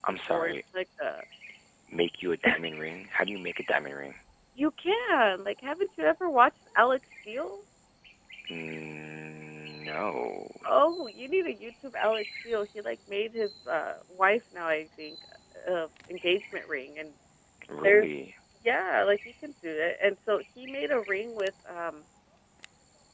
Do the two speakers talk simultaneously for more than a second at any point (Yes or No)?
No